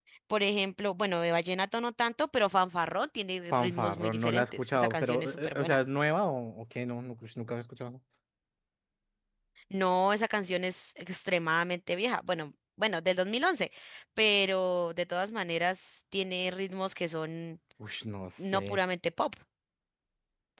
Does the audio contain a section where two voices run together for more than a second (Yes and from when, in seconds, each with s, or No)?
Yes, from 3.5 s